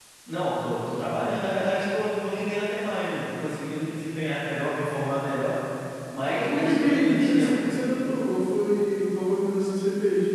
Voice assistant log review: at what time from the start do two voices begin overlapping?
6.3 s

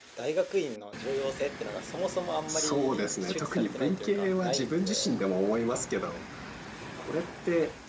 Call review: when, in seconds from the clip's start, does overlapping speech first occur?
2.5 s

